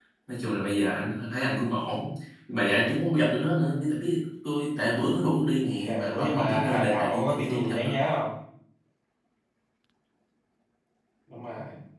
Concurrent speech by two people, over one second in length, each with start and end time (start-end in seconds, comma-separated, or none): 5.8-8.0